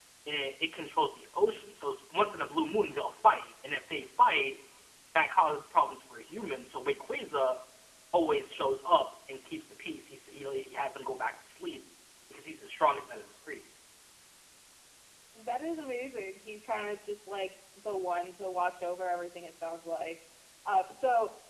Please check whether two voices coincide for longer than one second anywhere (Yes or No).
No